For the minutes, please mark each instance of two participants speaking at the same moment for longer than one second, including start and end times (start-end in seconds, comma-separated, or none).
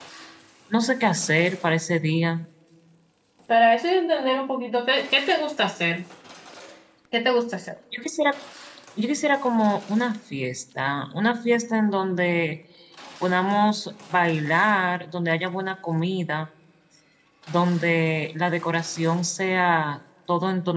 none